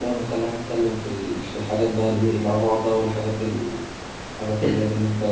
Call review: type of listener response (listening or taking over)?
listening